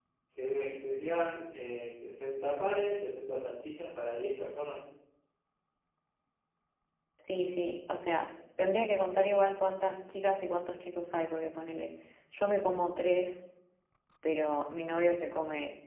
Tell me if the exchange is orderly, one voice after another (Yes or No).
Yes